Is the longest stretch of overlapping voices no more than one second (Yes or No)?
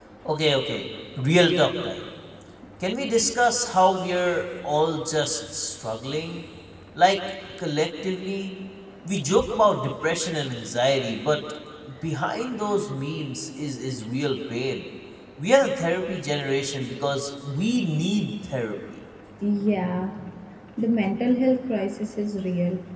Yes